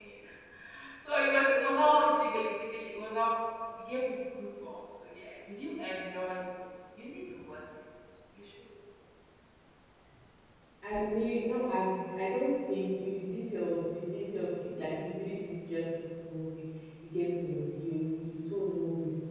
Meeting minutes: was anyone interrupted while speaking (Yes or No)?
No